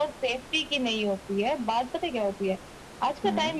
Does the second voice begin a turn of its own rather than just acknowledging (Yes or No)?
No